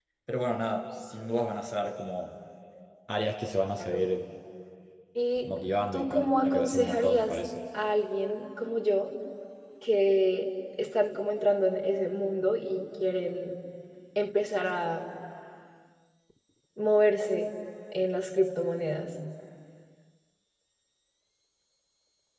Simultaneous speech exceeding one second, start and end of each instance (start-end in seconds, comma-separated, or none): 5.9-7.4